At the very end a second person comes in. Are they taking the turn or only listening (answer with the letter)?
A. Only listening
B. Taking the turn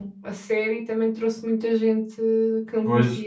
B